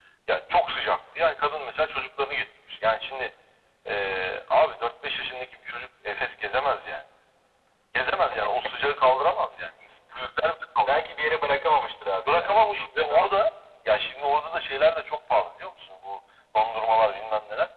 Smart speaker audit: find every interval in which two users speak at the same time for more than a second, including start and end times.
none

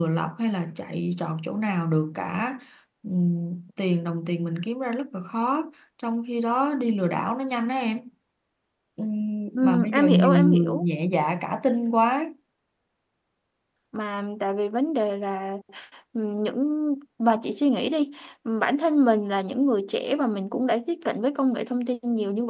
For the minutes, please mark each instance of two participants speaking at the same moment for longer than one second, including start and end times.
9.5-10.8

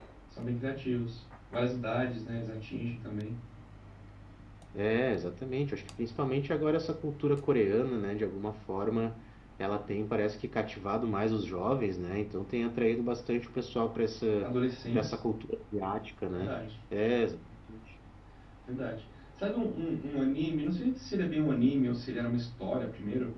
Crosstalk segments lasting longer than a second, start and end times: none

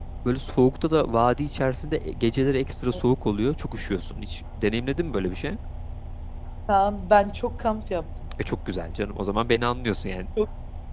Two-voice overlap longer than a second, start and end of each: none

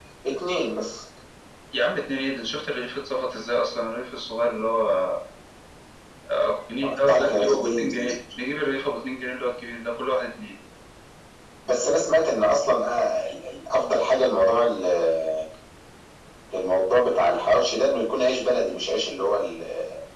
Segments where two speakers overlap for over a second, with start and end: 6.8-8.2

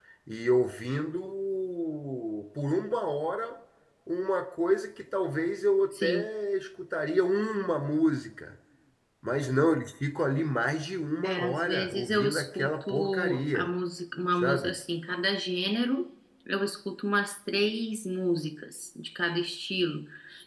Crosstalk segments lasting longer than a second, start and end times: 11.2-13.7

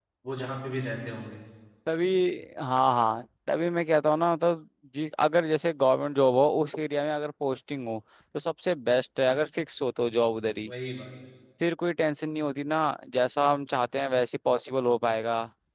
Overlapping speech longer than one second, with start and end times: none

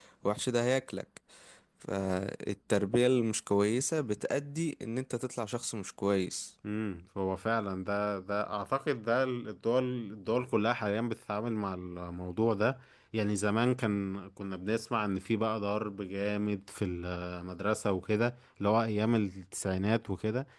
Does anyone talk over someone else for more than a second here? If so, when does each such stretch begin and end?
none

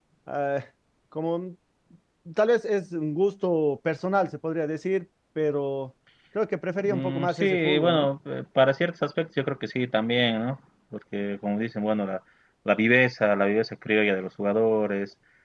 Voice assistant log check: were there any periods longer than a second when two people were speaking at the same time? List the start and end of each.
6.8-8.1

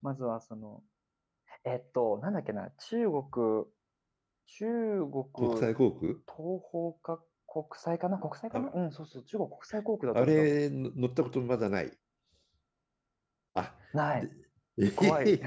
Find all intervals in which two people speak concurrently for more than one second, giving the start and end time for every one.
none

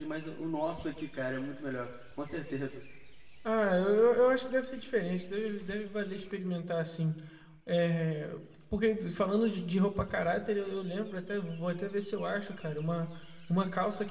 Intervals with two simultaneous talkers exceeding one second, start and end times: none

